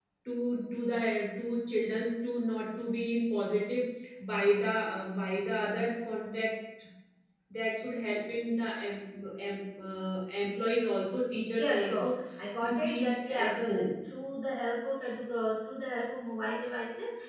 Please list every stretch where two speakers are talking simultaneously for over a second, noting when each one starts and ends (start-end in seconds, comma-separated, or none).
12.6-13.9